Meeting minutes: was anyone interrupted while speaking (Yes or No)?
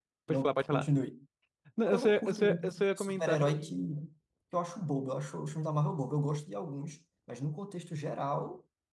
Yes